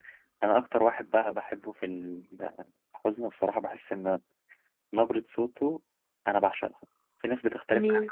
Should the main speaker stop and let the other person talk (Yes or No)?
No